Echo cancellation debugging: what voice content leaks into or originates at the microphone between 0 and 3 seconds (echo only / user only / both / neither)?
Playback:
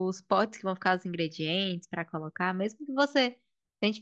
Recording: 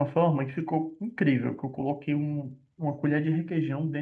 user only